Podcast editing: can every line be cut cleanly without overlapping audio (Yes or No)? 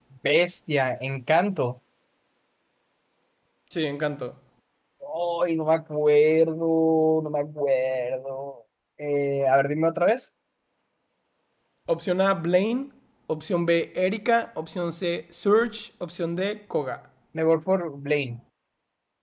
Yes